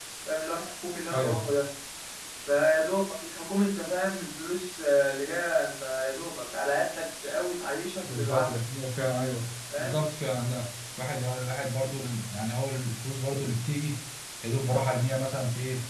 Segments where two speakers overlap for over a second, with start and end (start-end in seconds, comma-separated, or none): none